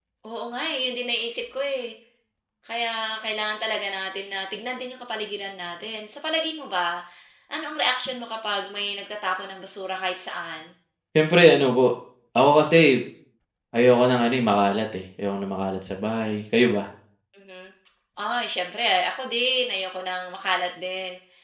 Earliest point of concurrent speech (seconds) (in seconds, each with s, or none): none